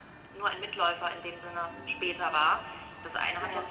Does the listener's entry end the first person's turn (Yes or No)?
No